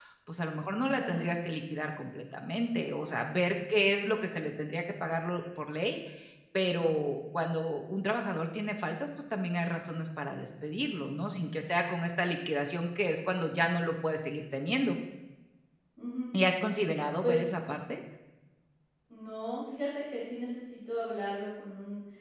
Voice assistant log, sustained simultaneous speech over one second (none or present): none